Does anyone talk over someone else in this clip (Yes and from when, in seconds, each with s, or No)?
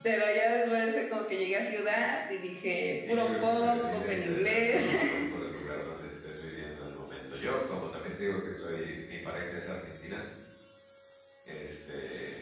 Yes, from 3.0 s